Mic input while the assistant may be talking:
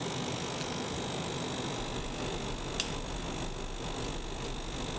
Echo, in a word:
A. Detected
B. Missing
B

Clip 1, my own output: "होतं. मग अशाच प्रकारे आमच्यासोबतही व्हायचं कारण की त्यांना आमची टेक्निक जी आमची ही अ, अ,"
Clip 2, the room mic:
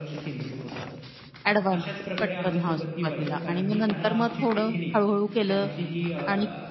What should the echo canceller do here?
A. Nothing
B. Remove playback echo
B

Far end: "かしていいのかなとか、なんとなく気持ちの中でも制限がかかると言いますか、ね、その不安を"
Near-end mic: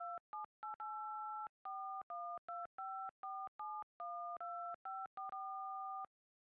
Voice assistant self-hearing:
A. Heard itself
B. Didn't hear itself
B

